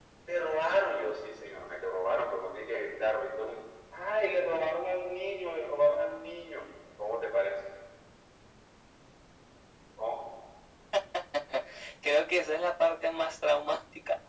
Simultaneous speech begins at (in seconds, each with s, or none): none